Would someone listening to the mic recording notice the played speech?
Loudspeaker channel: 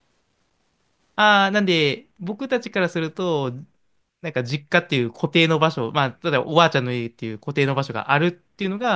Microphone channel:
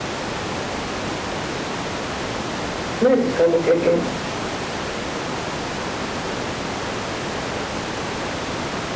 No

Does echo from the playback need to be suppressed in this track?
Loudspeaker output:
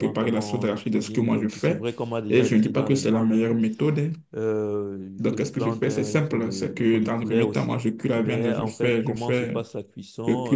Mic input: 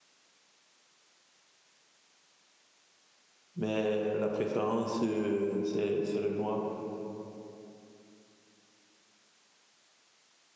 No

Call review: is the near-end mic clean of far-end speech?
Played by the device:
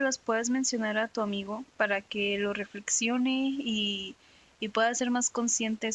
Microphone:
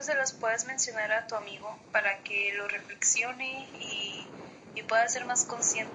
No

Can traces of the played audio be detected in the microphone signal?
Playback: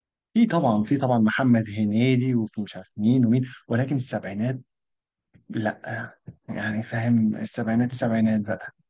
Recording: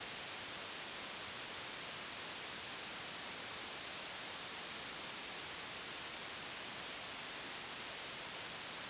No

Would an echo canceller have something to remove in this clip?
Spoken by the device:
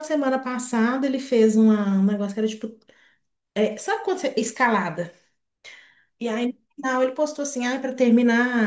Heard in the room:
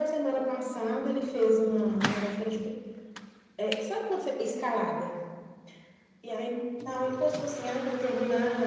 Yes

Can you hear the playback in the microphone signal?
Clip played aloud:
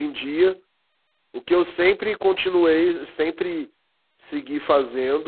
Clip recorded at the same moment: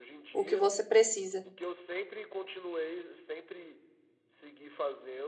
Yes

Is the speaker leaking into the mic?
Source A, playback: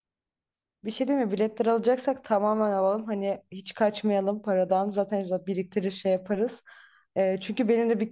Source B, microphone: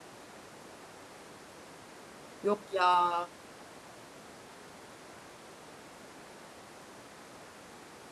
No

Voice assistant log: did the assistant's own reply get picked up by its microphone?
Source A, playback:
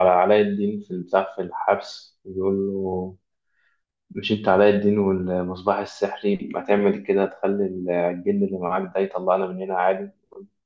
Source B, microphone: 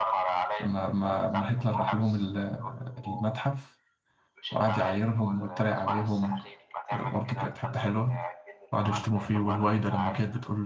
Yes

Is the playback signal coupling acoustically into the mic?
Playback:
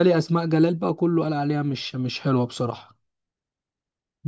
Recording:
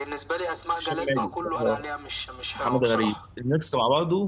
Yes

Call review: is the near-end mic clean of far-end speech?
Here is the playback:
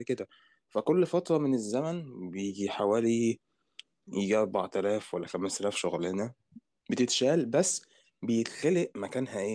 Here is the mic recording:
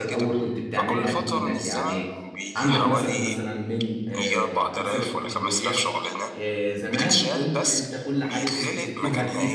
No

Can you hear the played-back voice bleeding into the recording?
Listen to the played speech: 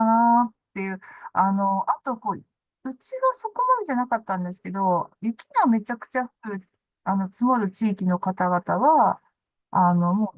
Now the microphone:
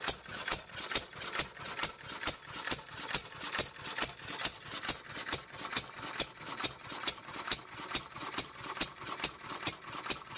No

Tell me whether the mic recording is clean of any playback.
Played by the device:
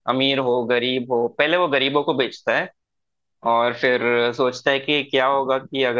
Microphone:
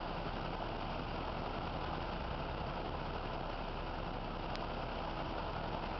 Yes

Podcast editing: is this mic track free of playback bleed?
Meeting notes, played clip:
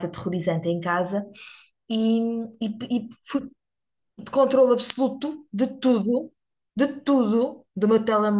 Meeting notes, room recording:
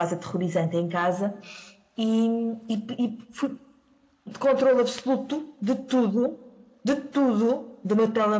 No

